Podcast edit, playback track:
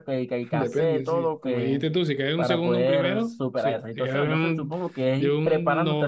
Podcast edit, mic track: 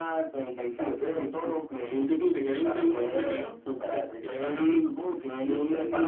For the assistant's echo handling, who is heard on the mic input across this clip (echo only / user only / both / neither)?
echo only